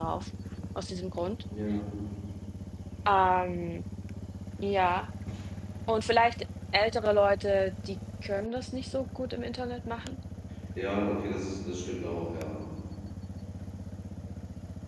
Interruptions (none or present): none